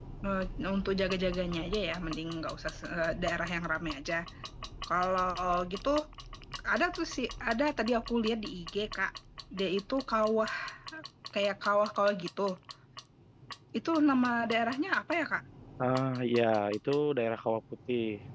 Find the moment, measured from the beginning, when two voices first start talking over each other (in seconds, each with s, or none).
none